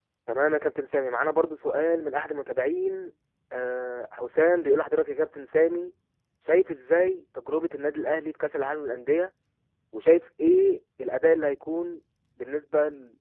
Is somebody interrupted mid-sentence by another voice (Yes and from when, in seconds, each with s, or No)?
No